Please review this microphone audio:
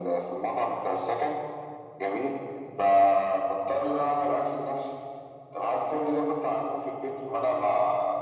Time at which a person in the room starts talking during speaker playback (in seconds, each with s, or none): none